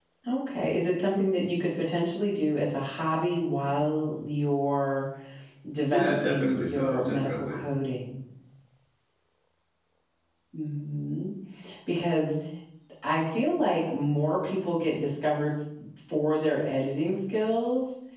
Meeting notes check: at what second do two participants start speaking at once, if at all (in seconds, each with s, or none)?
5.9 s